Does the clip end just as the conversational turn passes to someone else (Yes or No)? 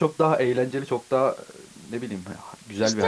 Yes